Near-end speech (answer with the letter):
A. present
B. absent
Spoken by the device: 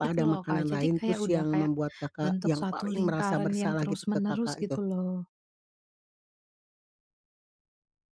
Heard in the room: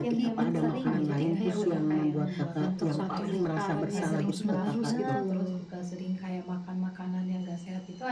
A